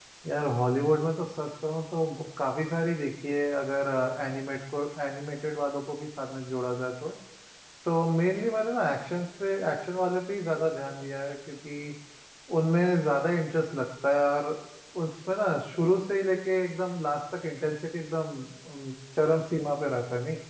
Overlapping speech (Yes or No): No